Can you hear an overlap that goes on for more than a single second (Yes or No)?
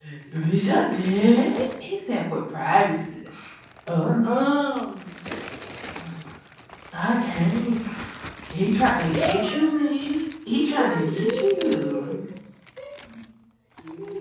Yes